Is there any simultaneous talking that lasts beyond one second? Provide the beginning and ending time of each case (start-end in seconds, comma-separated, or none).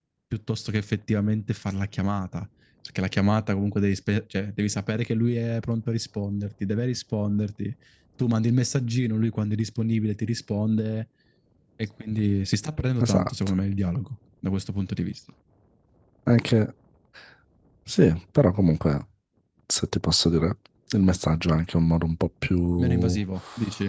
none